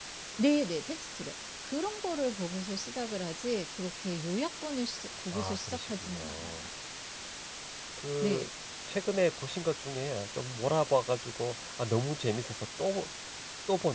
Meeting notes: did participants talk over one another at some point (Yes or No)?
Yes